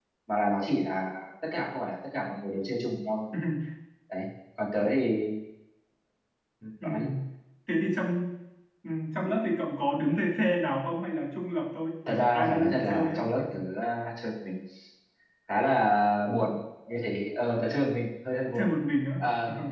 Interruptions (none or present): present